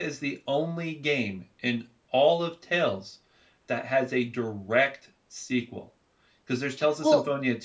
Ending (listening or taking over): listening